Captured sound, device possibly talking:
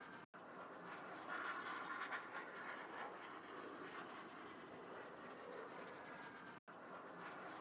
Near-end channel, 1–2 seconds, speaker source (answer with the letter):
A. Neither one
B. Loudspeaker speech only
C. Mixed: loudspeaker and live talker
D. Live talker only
A